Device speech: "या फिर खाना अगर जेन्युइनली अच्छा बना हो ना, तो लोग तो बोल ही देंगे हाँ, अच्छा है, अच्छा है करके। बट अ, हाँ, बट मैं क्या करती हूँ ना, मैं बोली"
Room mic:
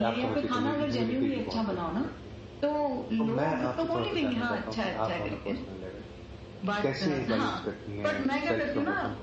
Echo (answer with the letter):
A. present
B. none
A